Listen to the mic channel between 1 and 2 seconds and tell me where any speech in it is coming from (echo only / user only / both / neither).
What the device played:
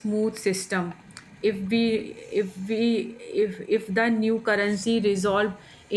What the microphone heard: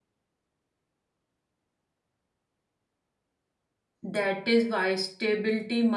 neither